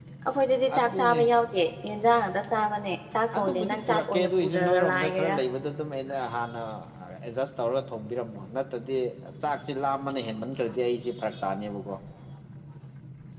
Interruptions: present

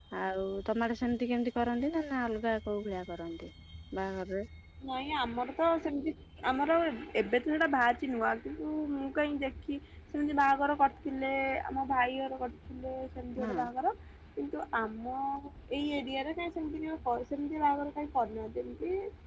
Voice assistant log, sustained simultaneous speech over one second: none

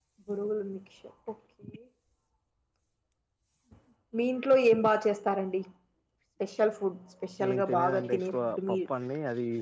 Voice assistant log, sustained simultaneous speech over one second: present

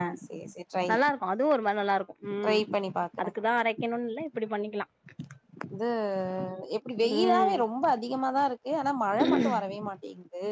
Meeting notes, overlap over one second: none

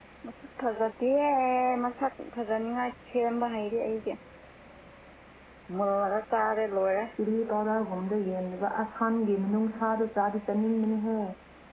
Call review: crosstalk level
none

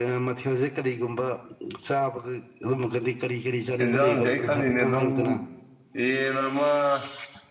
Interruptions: present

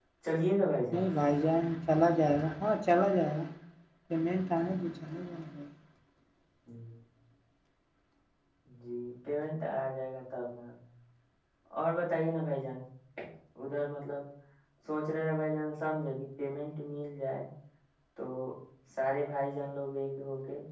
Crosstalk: none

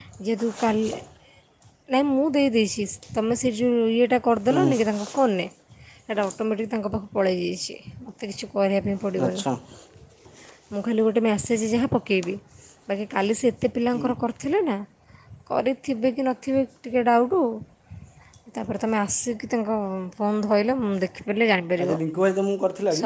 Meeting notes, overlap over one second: none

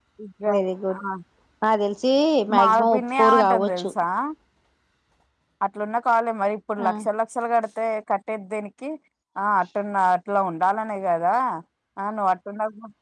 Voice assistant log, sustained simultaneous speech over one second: present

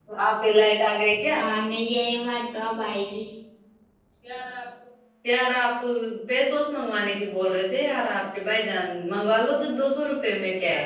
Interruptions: none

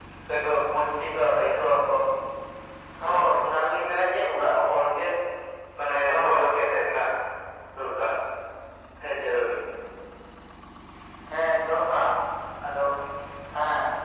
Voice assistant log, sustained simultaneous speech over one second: none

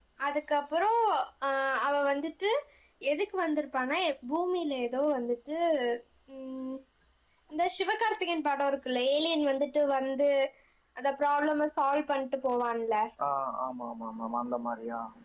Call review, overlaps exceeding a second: none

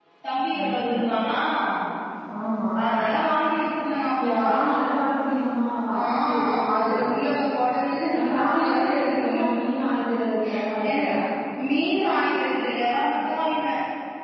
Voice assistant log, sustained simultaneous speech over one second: present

